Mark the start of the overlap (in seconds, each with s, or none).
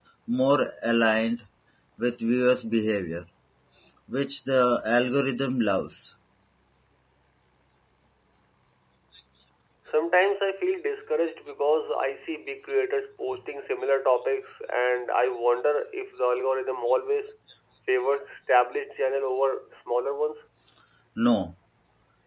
none